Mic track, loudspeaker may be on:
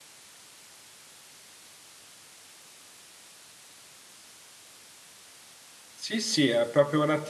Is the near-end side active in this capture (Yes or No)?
Yes